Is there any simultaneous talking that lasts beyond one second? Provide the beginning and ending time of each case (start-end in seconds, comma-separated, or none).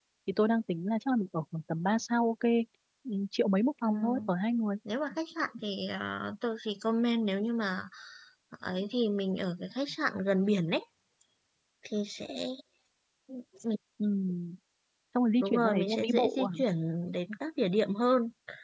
15.4-16.6